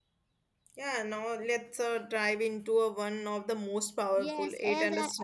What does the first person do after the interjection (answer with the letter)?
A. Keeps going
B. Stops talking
B